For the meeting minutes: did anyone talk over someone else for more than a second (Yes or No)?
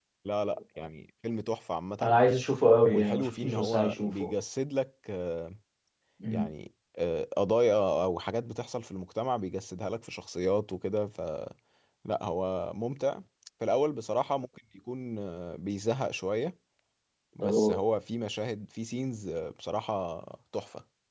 Yes